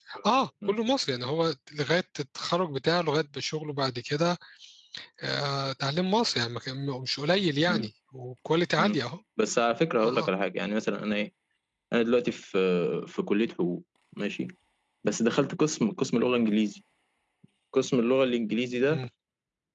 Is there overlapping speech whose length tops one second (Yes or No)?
No